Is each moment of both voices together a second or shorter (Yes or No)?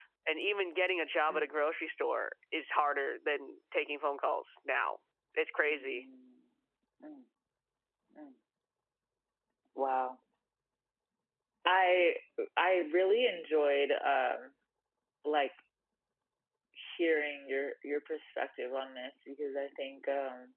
Yes